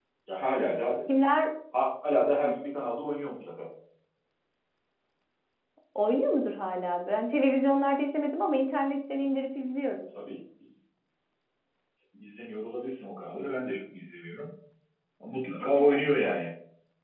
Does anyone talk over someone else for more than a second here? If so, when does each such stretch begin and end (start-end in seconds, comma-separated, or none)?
none